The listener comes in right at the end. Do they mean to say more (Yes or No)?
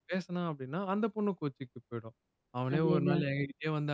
No